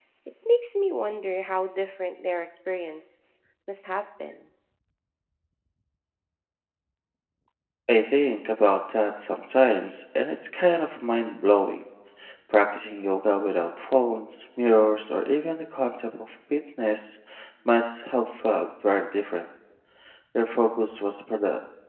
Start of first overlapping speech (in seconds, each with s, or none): none